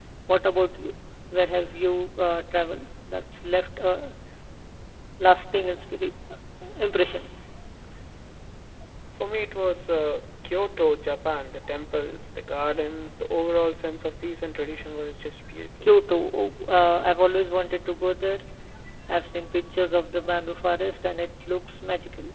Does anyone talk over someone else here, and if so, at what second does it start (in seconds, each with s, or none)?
none